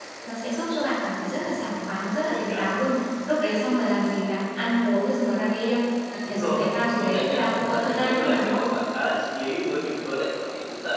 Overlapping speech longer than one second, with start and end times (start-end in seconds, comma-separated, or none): 6.2-8.6